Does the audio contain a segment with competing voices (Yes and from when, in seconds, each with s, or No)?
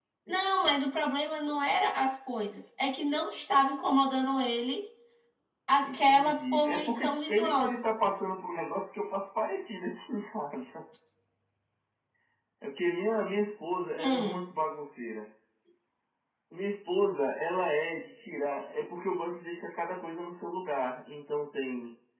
Yes, from 5.8 s